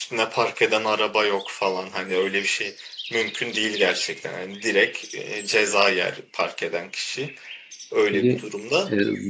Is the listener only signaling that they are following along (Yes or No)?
No